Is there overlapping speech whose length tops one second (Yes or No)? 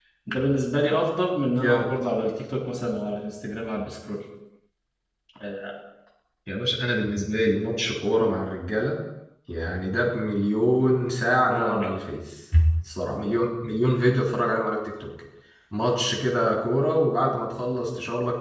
No